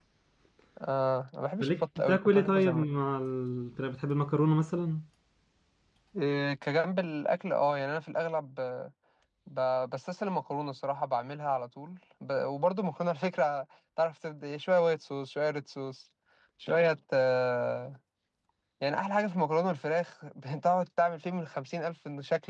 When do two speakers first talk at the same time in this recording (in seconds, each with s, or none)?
1.6 s